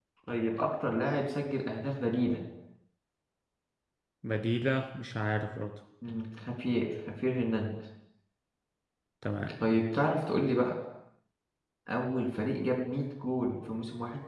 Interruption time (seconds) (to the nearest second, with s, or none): none